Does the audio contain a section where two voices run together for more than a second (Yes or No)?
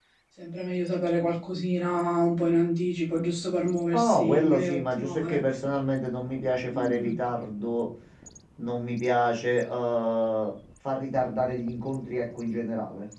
Yes